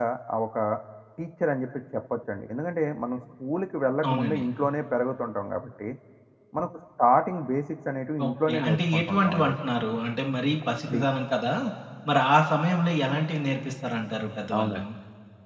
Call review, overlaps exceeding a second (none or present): present